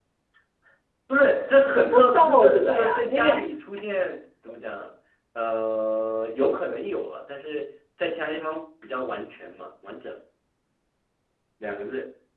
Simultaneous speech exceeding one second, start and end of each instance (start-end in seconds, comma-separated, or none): 1.7-3.3